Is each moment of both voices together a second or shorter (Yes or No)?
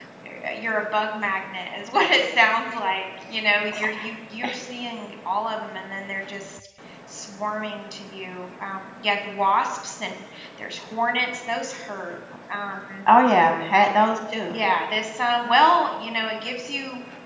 Yes